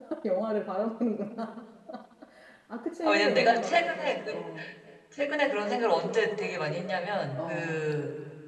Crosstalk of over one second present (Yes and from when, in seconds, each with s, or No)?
Yes, from 3.0 s